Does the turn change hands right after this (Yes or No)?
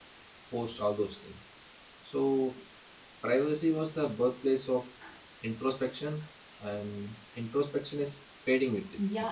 Yes